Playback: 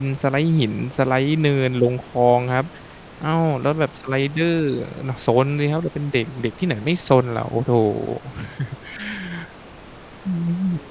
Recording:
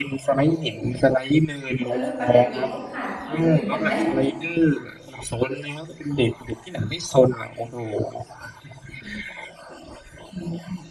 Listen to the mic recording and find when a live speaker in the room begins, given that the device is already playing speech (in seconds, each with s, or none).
1.9 s